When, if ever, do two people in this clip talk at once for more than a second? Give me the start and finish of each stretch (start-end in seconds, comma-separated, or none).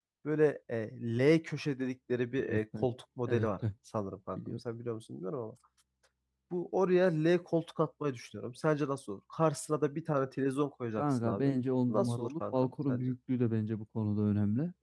11.9-13.1